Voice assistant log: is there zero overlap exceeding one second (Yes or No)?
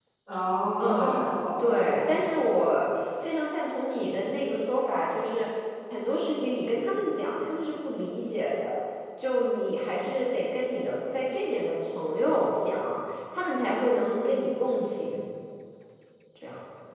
No